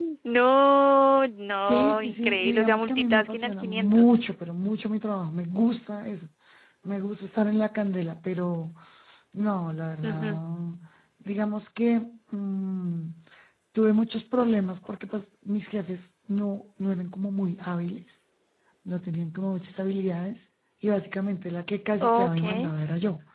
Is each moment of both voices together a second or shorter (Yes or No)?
No